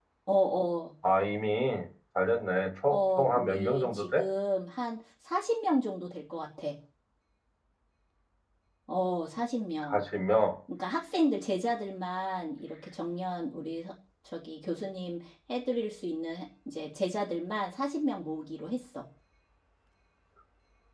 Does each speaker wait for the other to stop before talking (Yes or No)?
No